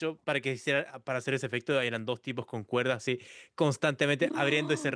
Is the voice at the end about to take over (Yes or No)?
No